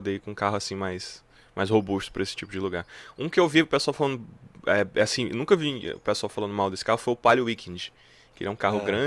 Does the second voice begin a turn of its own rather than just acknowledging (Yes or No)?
No